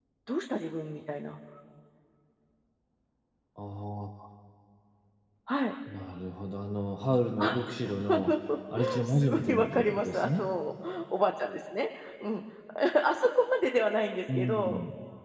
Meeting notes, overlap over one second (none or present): present